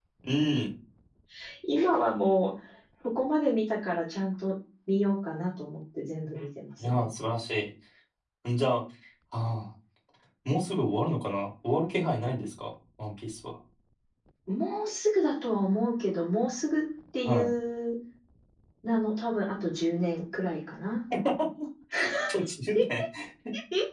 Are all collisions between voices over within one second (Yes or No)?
Yes